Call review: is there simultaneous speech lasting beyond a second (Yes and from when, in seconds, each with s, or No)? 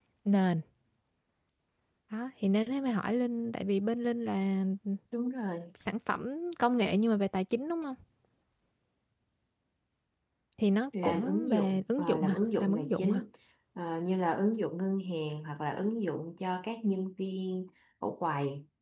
Yes, from 11.0 s